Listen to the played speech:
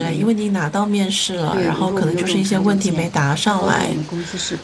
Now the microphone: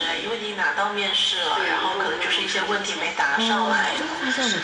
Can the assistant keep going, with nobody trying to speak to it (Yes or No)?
No